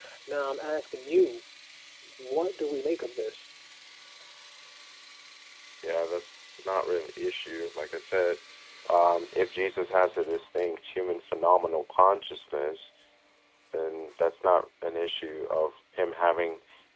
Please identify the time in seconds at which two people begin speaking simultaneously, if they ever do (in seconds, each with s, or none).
none